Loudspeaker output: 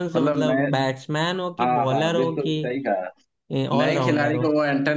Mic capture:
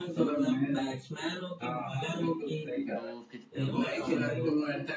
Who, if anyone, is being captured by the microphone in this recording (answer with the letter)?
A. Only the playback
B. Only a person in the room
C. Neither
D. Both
D